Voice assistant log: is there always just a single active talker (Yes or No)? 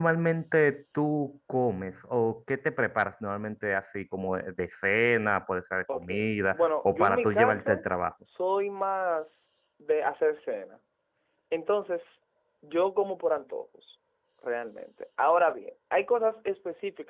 No